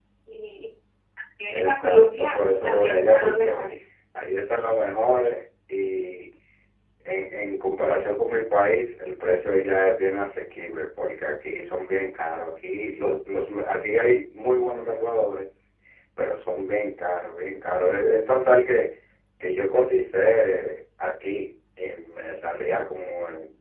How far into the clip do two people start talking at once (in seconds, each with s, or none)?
1.5 s